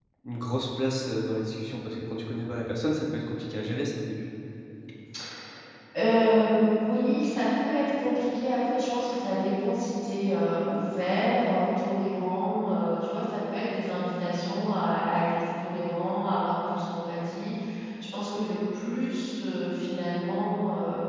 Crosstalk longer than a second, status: none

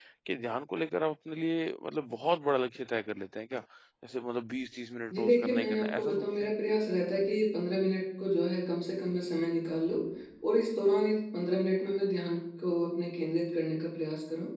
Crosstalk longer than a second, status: present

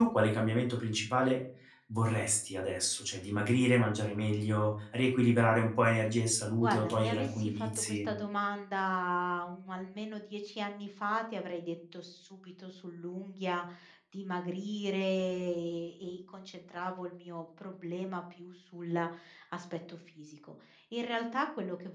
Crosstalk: present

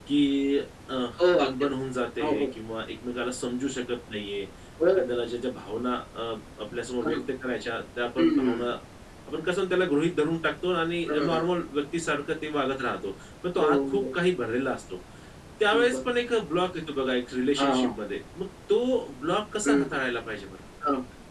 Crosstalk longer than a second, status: none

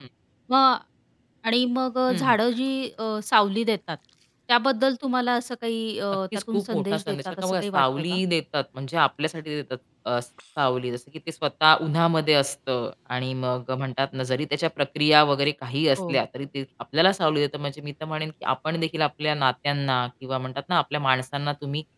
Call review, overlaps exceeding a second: present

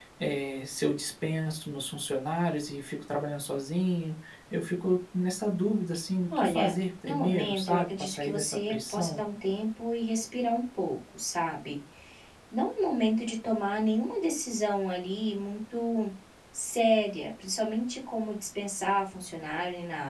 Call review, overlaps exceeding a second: present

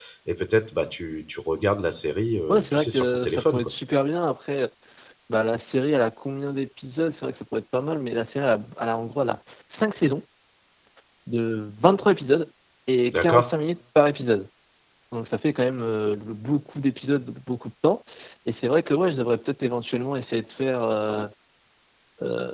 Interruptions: present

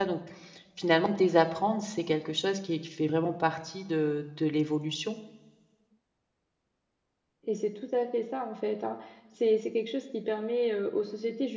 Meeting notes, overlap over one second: none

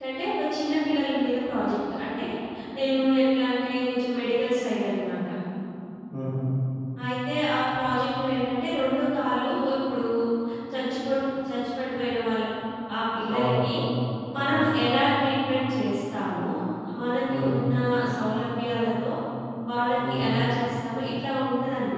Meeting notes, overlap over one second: none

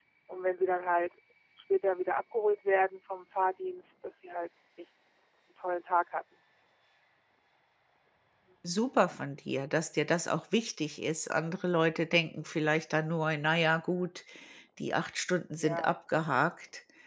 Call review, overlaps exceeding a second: none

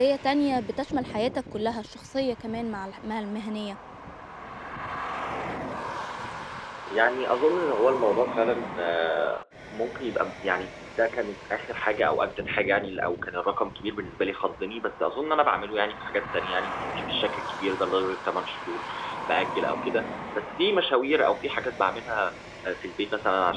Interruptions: none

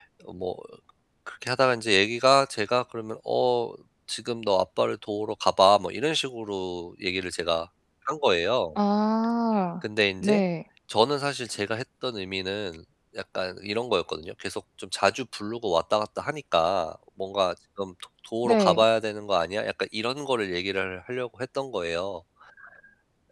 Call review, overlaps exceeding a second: none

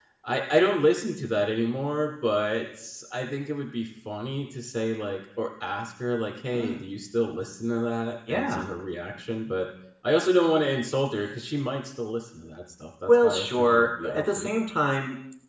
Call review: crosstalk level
present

